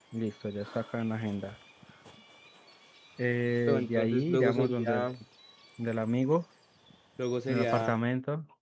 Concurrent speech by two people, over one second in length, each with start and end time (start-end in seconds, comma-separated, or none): 3.7-5.1